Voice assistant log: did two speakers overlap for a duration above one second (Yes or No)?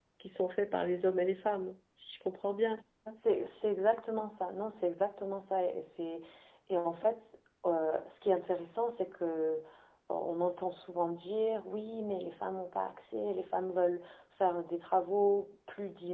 No